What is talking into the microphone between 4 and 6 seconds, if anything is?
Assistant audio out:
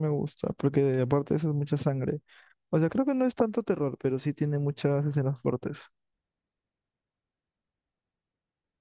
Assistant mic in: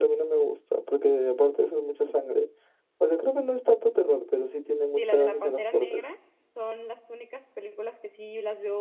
both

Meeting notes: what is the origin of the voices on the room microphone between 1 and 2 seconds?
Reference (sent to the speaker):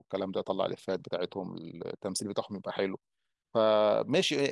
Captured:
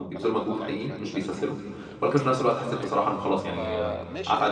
both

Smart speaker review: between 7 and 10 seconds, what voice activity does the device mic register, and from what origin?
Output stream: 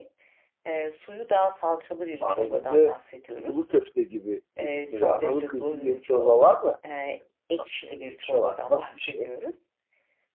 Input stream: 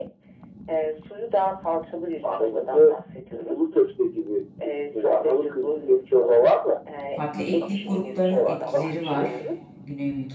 both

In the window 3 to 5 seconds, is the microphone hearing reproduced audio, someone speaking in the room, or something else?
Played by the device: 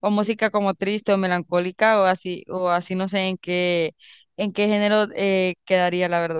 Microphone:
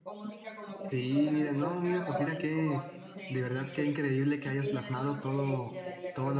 both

